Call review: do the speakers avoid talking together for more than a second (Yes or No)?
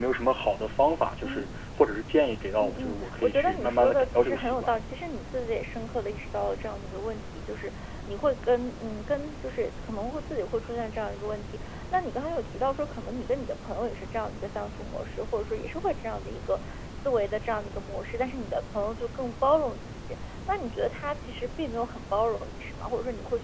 No